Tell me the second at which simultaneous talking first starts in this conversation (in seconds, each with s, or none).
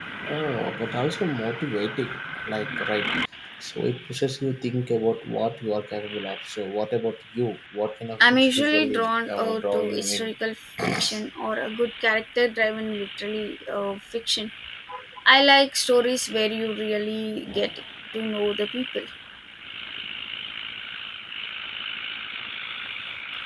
8.2 s